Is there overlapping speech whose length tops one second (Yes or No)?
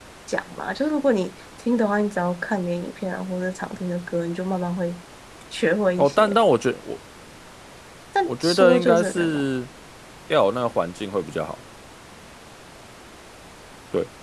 Yes